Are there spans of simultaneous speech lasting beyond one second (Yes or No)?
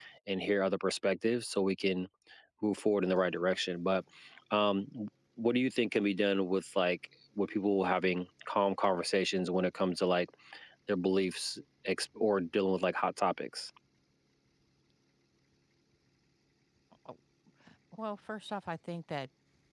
No